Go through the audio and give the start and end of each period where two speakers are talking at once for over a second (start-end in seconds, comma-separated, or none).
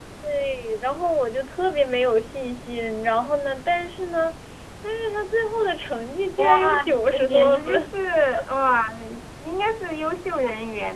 6.4-7.7